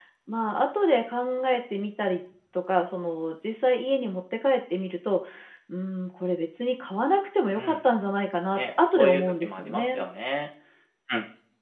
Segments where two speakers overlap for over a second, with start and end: 8.6-10.0

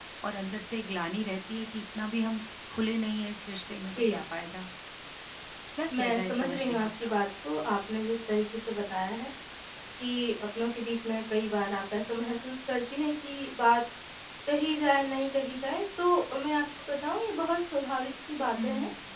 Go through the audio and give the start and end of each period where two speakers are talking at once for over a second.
5.9-7.1

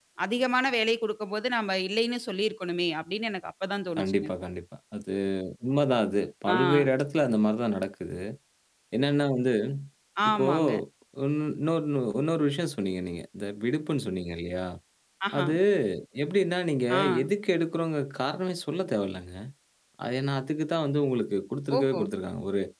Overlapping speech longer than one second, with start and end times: none

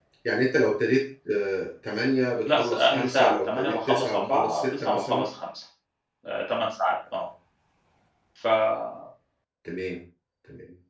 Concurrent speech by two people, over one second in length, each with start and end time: 2.5-5.3

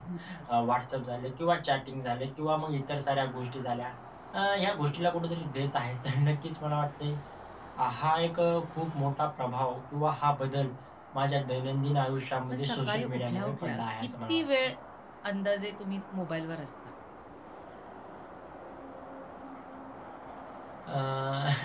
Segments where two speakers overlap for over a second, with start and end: 12.5-14.4

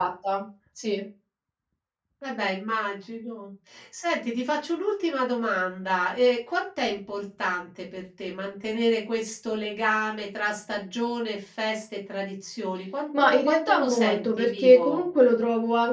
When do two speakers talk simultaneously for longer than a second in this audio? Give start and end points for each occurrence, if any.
13.2-15.0

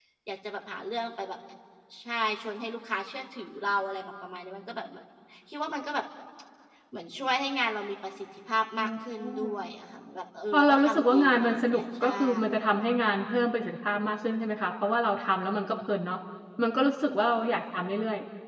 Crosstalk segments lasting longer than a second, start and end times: 10.5-12.6

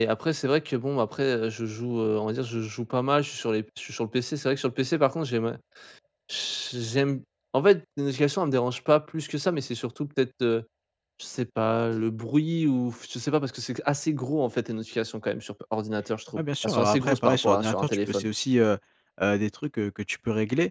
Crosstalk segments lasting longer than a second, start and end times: 16.4-18.3

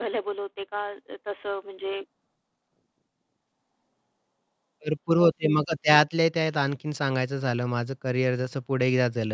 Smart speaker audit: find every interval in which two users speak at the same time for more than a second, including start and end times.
none

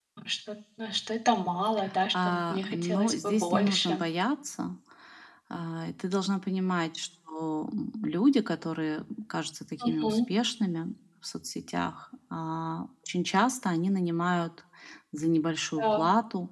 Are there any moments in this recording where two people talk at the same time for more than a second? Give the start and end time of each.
2.1-4.0

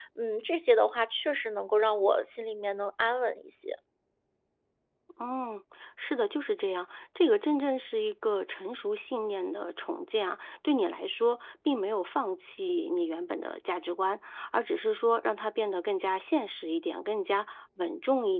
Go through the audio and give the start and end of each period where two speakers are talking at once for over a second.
none

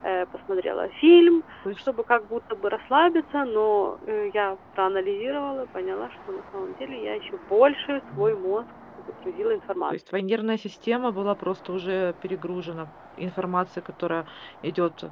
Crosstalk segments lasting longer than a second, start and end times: none

